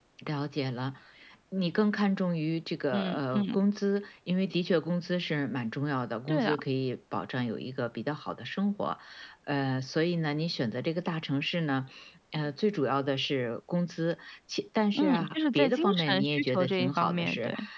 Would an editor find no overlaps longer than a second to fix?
No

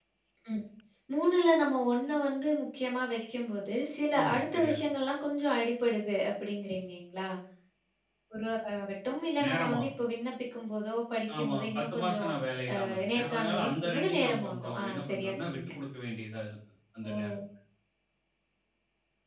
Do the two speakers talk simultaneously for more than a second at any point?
Yes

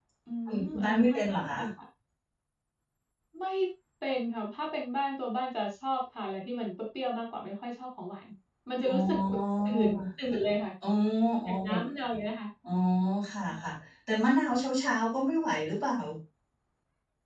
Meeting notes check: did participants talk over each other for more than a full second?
Yes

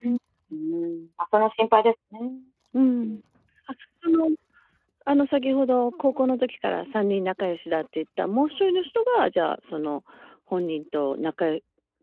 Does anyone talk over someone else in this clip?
No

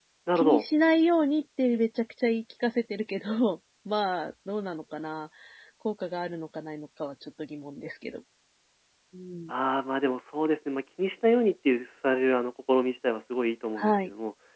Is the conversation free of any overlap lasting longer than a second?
Yes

